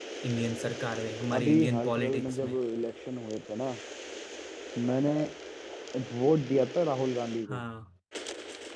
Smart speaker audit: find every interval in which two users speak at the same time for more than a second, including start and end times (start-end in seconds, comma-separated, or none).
1.4-2.6